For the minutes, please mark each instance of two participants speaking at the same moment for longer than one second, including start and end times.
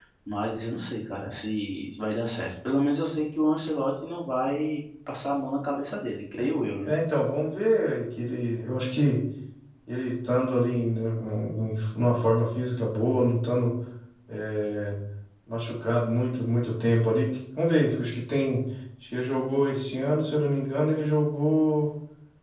none

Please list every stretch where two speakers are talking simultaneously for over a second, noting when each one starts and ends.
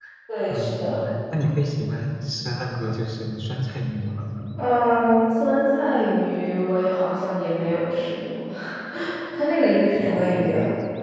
none

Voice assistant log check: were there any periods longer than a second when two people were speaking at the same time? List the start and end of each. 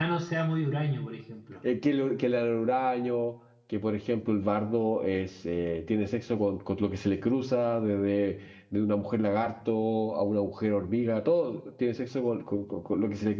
none

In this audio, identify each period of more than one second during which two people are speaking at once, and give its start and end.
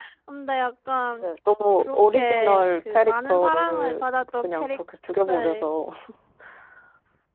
1.8-4.8

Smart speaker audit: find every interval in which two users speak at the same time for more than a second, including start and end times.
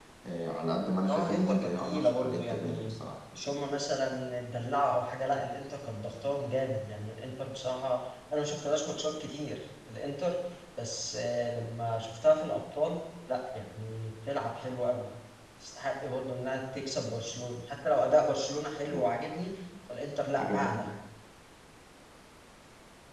1.1-3.0

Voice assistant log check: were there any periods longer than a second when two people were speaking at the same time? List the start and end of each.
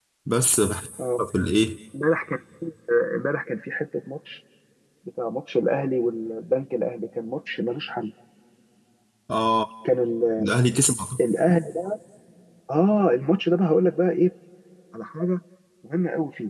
none

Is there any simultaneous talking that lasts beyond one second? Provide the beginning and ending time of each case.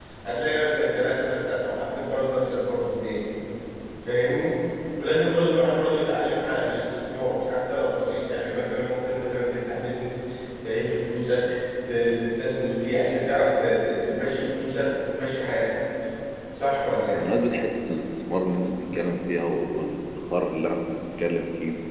none

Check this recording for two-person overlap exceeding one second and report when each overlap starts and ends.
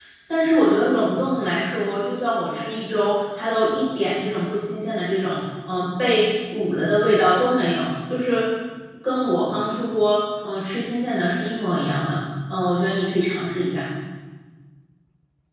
none

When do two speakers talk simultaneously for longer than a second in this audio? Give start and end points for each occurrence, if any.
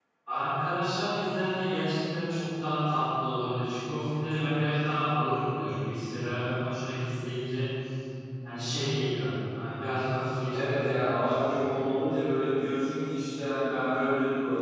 10.5-11.8

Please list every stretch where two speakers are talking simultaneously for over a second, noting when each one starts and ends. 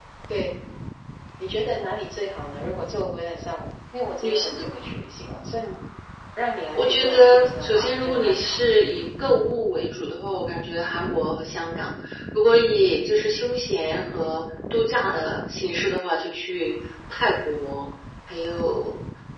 6.8-8.6

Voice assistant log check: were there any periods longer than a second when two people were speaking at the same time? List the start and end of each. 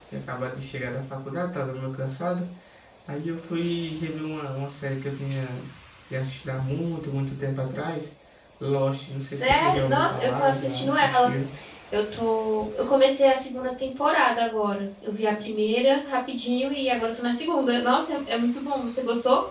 9.4-11.3

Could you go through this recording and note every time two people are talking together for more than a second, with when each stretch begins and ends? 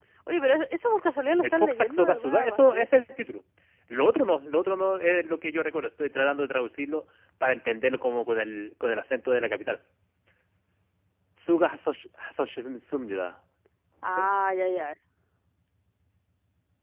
1.4-2.9

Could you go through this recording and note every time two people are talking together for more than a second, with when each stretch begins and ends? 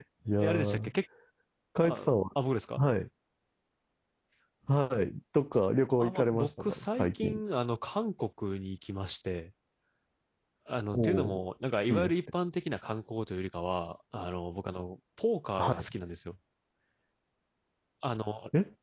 6.0-7.4

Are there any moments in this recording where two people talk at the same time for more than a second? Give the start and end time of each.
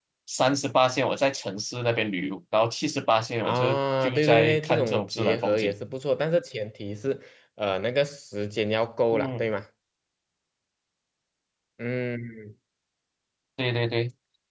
3.4-5.7

